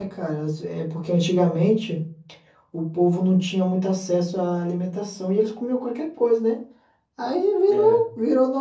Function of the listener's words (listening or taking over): listening